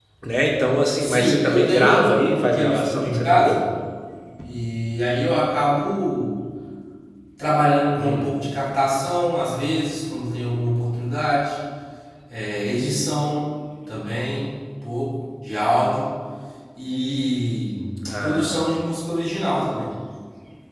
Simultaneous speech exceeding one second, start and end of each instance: 1.0-3.6

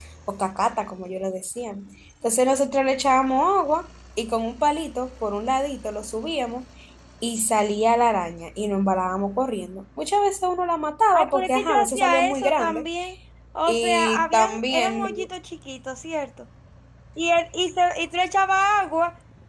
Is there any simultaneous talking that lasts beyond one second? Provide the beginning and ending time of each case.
11.1-12.9, 13.7-15.3

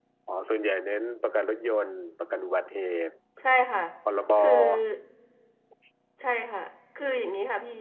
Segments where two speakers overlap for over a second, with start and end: none

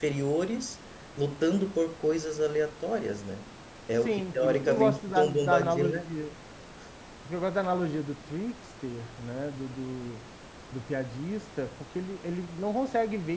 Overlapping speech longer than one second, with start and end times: 4.0-6.1

